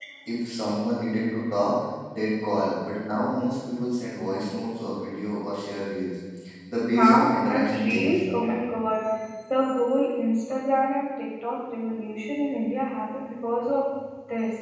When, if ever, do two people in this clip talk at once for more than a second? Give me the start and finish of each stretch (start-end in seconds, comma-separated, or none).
6.9-8.2